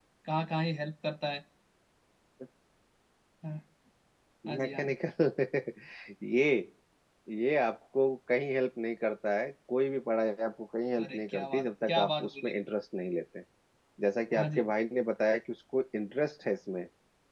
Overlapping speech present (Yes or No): Yes